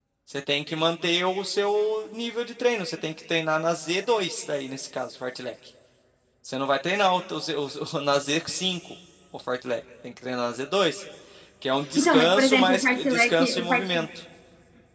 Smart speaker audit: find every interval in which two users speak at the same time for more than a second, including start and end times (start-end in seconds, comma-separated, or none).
11.9-13.9